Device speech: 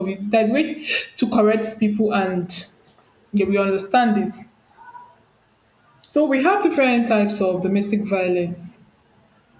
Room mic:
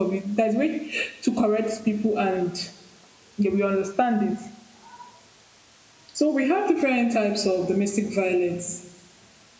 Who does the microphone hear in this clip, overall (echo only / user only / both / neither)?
echo only